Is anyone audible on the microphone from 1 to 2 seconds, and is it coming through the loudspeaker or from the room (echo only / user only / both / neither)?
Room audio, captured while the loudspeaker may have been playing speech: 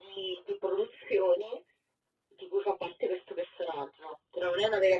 echo only